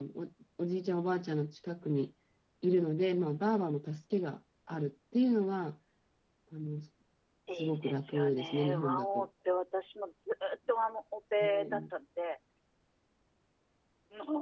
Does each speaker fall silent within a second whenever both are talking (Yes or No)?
No